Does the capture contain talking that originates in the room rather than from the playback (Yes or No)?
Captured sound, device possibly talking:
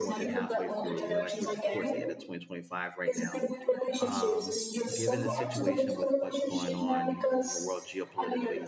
Yes